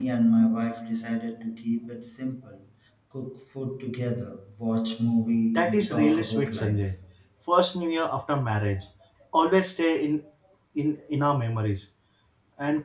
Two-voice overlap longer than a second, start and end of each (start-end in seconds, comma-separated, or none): 5.6-7.0